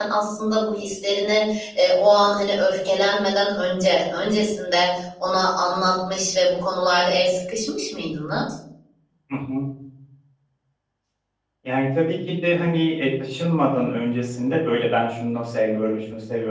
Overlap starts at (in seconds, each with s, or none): none